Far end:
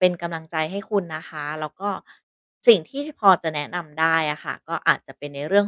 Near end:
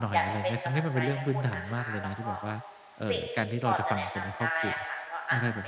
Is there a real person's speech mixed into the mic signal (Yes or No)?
Yes